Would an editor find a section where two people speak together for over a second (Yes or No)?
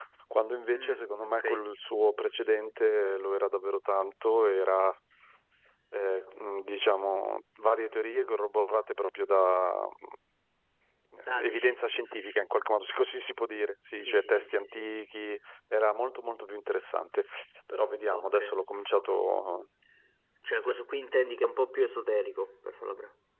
Yes